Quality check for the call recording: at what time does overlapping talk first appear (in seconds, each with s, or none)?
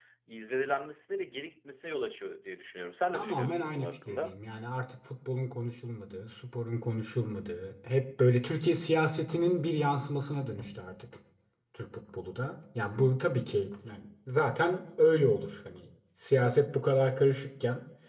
3.1 s